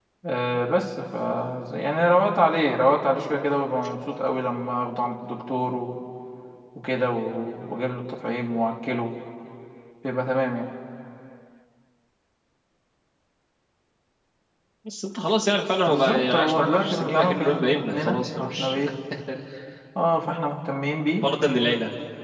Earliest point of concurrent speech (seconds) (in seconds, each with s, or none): 15.9 s